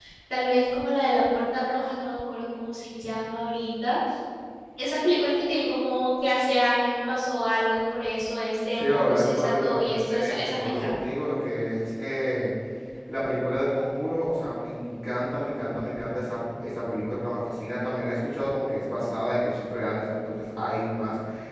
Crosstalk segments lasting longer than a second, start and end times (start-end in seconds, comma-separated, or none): 8.7-10.9